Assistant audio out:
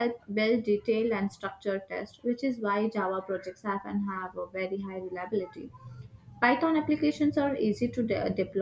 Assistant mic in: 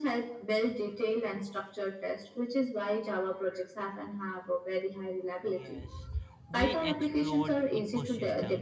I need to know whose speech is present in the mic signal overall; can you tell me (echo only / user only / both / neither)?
both